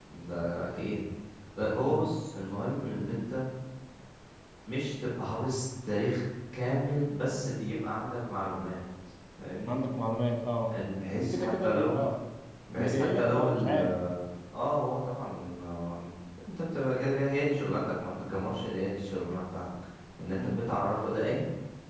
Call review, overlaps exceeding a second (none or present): present